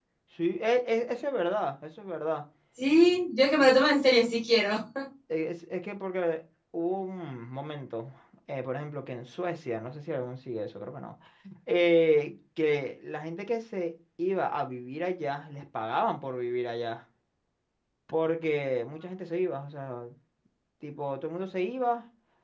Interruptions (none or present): none